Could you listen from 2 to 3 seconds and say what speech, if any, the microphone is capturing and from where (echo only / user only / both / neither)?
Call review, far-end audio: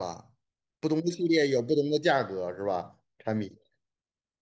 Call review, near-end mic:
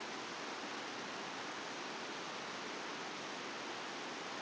neither